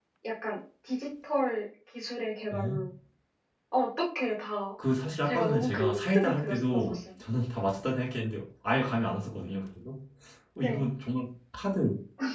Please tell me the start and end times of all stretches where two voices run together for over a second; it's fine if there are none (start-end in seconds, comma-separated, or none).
5.2-7.1